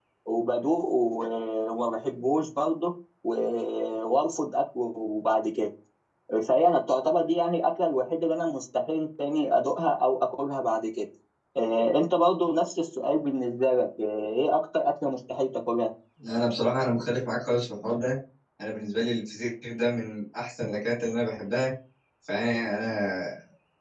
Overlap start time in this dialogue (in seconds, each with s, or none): none